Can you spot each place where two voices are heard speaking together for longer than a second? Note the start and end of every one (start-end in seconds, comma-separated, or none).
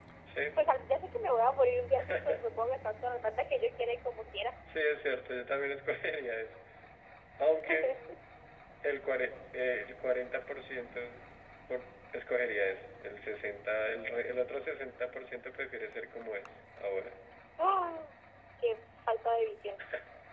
none